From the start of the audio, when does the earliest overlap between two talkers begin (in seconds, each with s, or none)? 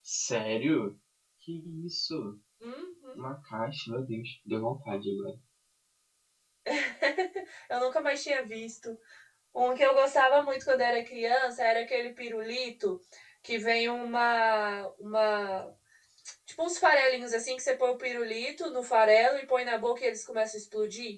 none